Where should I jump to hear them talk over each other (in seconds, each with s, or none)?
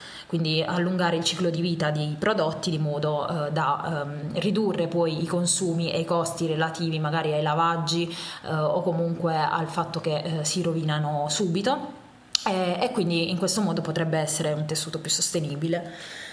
none